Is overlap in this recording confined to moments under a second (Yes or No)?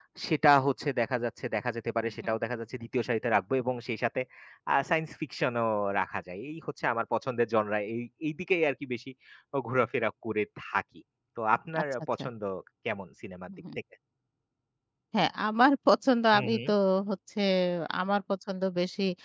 Yes